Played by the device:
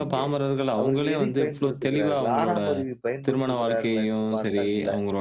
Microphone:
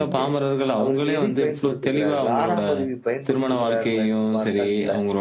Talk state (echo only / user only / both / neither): echo only